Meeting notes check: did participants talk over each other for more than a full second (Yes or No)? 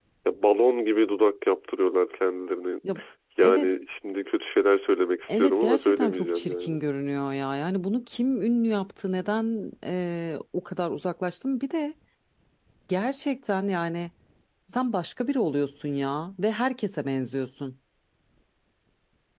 Yes